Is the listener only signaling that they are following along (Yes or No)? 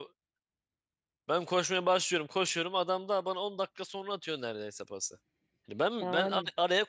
No